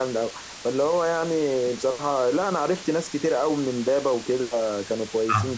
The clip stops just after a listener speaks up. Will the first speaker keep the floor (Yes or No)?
No